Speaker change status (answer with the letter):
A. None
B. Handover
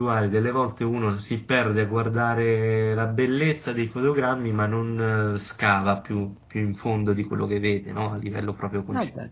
B